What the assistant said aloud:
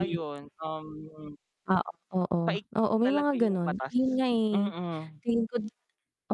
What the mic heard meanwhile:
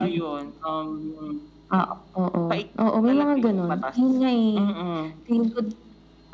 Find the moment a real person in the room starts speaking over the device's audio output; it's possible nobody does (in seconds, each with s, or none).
none